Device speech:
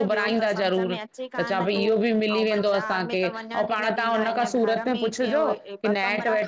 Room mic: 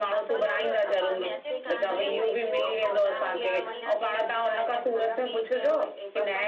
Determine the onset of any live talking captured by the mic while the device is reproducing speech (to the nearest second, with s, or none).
0 s